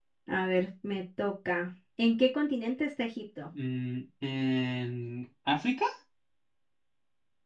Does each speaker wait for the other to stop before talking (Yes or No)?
Yes